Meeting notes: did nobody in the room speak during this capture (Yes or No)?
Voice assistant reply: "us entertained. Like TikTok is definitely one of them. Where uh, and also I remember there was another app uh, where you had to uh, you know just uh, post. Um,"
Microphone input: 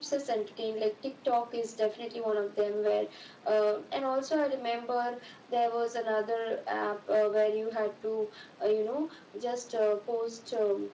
Yes